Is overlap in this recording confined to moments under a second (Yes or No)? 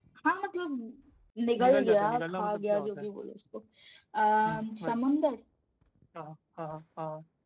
No